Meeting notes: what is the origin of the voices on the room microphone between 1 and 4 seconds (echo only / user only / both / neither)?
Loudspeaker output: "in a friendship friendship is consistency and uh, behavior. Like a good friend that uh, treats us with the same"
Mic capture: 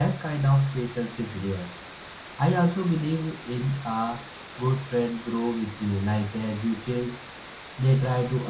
user only